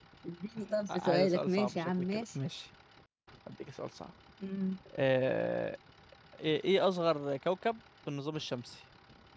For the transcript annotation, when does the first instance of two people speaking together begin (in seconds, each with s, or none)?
0.9 s